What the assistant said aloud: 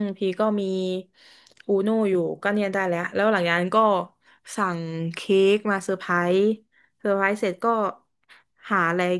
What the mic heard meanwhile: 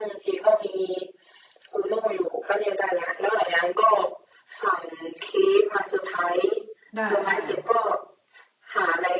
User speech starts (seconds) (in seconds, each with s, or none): 7.0 s